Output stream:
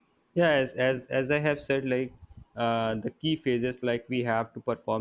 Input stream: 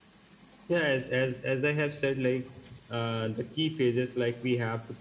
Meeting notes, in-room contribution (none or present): none